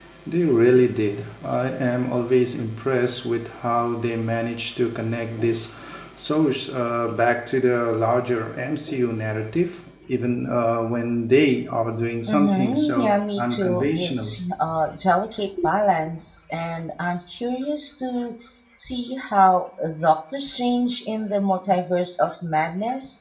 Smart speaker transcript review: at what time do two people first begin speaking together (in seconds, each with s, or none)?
12.2 s